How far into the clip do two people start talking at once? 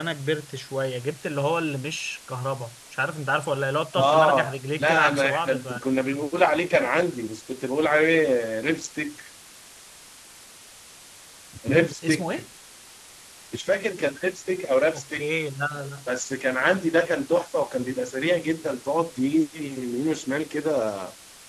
4.0 s

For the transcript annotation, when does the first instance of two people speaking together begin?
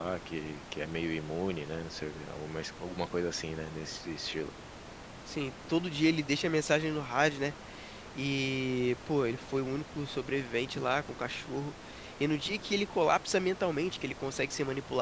none

